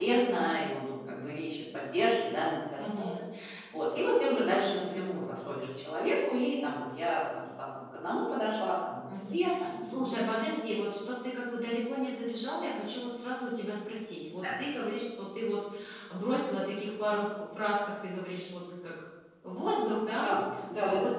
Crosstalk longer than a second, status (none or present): none